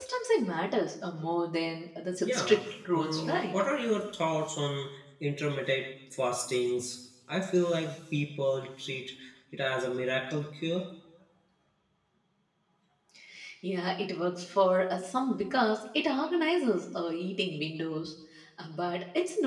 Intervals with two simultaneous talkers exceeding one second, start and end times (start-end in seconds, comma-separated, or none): 2.2-3.6